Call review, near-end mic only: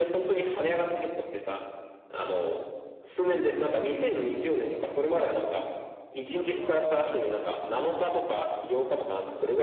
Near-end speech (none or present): present